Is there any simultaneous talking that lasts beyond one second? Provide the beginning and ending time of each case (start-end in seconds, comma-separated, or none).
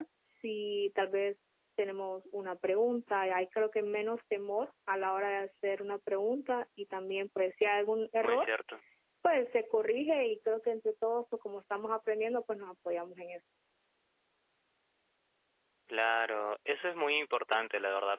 none